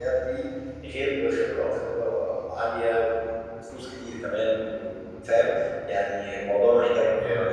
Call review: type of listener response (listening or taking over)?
taking over